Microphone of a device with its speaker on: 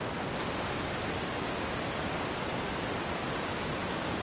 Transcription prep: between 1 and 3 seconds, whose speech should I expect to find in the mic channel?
neither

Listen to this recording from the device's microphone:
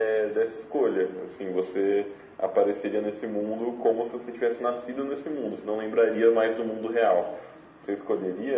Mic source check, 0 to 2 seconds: echo only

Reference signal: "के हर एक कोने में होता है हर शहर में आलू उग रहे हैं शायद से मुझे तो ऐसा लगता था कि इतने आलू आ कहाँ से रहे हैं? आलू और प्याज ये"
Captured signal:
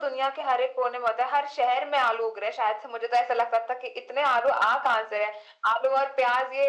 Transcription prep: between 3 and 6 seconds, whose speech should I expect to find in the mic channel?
echo only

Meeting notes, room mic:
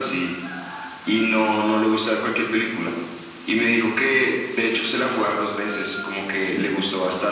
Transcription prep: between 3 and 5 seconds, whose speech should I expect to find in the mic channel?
echo only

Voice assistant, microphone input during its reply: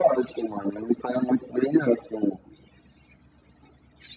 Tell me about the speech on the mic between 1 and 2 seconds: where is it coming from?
echo only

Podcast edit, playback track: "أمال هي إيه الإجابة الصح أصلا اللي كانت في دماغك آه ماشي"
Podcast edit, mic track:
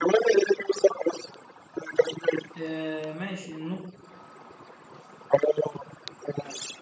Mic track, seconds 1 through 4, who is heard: both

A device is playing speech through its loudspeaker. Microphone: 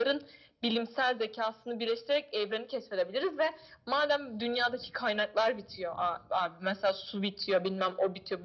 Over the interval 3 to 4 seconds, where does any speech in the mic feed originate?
echo only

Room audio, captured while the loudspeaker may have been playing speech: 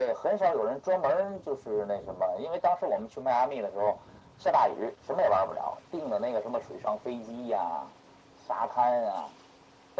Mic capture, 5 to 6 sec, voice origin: echo only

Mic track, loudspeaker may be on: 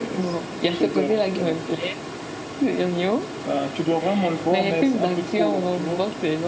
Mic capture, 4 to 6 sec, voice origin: both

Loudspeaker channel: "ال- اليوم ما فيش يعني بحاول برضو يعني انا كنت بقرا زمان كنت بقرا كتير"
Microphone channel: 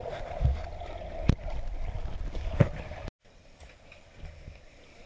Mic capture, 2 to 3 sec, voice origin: neither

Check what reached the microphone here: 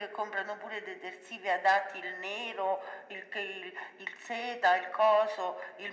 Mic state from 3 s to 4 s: echo only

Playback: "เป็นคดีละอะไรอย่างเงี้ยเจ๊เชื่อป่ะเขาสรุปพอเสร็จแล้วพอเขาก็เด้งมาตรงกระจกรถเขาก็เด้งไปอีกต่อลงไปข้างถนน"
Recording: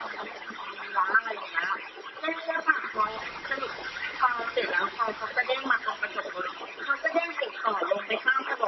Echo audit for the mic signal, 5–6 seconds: echo only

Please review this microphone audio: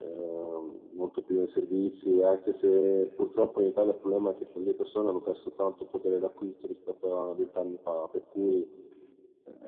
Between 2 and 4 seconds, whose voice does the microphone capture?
echo only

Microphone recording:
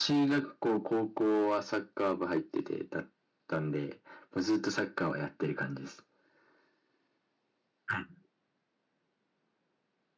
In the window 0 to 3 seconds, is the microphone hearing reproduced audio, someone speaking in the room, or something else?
echo only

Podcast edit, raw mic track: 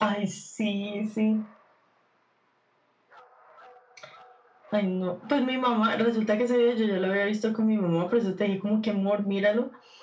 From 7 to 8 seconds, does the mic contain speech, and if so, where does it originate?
echo only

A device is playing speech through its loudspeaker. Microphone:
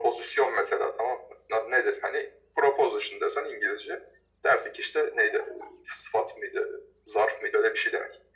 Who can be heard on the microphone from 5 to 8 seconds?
echo only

